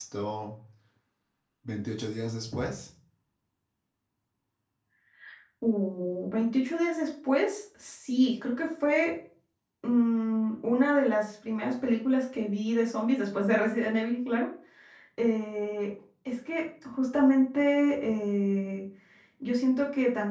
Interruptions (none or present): none